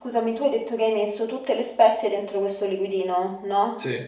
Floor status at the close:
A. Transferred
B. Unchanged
B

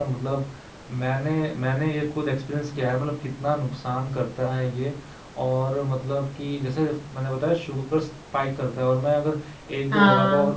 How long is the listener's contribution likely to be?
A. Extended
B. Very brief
B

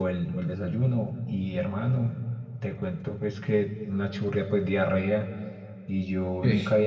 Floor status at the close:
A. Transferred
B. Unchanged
B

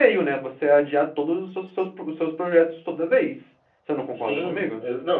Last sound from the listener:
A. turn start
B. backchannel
A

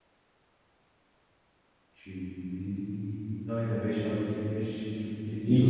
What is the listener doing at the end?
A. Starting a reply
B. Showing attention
A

